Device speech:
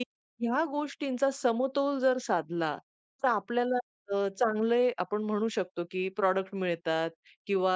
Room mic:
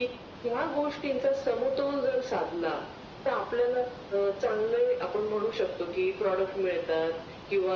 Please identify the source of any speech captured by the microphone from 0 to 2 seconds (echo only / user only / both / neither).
echo only